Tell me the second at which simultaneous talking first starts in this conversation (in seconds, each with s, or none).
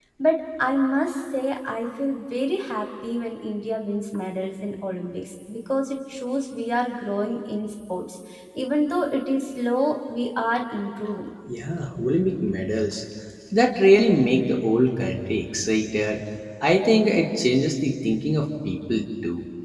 none